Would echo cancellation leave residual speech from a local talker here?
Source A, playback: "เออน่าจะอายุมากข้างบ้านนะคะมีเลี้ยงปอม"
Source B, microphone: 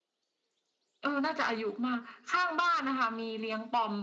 No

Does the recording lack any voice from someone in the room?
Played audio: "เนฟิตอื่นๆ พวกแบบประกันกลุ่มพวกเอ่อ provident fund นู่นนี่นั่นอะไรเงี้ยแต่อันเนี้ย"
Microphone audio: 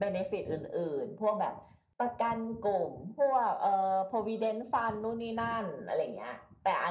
Yes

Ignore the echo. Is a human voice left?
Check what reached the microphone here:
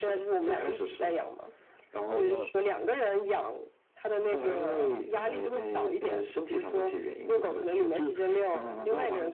Yes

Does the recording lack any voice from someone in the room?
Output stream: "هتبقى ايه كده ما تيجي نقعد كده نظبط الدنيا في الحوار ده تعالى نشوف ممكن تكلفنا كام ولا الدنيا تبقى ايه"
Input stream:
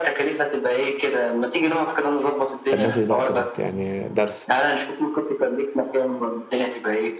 No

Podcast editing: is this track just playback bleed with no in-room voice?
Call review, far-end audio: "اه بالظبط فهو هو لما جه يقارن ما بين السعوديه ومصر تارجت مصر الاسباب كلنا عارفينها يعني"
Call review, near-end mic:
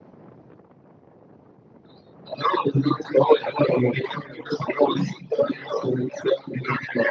Yes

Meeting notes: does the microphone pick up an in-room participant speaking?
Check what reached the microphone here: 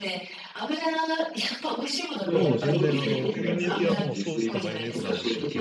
Yes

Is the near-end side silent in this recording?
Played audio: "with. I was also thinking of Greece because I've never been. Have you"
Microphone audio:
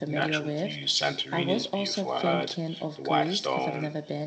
No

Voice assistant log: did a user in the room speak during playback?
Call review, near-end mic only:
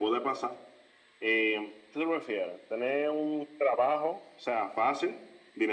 No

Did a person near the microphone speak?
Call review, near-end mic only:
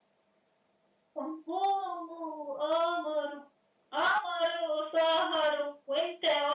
Yes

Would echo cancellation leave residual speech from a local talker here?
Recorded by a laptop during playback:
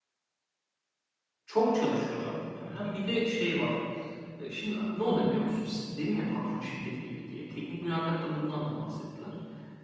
Yes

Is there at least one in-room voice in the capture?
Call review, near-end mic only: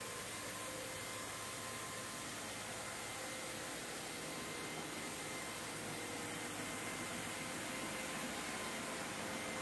No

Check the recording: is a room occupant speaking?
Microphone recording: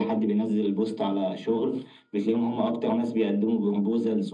No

